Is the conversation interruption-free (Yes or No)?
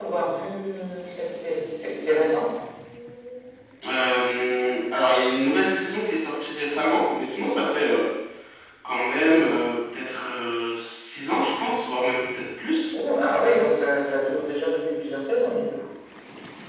Yes